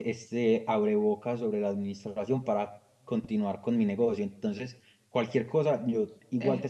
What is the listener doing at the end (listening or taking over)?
listening